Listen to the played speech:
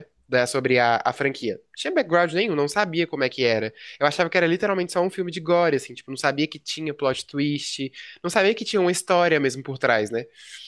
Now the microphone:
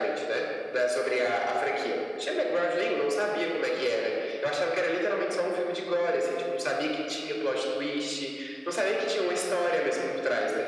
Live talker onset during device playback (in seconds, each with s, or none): none